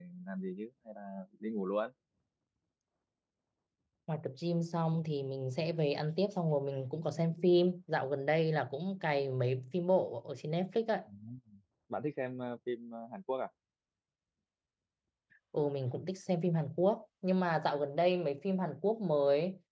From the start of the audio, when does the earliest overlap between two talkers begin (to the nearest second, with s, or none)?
none